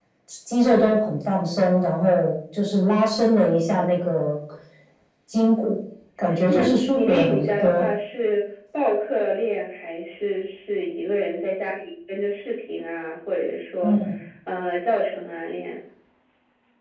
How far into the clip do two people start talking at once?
6.5 s

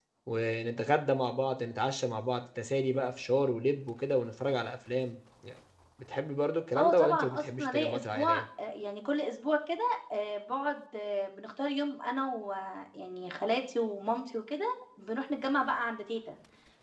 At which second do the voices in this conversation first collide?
6.8 s

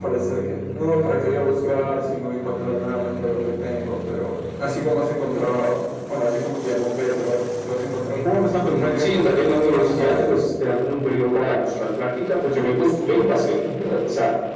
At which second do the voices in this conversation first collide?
8.6 s

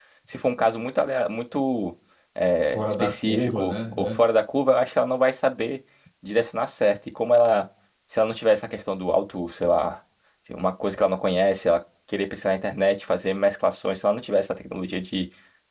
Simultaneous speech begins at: 2.7 s

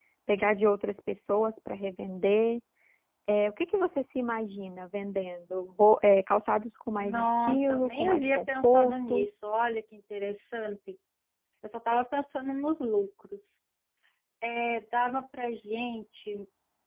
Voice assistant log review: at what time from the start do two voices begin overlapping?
7.0 s

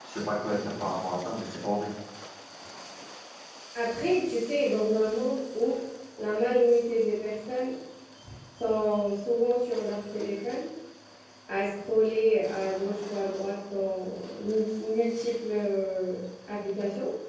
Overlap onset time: none

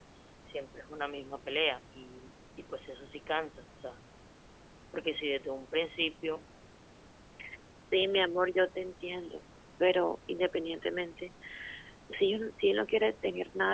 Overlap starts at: none

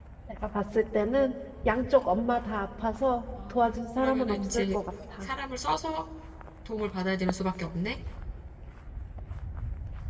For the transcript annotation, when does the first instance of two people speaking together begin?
3.4 s

